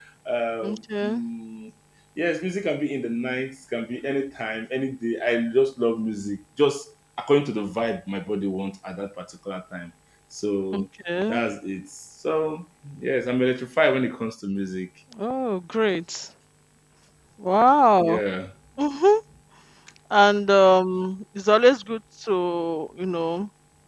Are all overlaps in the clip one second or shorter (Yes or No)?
Yes